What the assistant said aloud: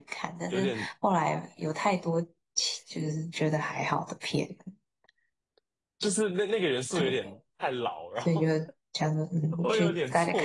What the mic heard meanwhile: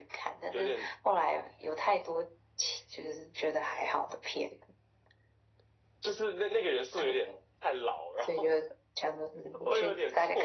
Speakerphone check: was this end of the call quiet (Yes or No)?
Yes